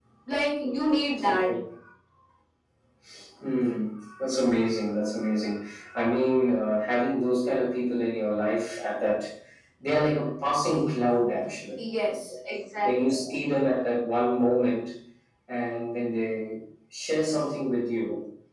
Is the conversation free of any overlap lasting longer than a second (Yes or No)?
Yes